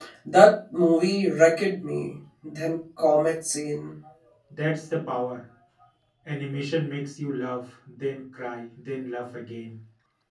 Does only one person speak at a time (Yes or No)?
Yes